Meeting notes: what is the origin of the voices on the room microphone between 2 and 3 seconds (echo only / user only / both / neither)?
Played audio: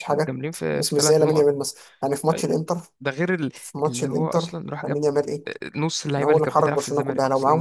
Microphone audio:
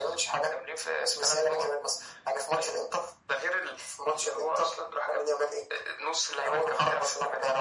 echo only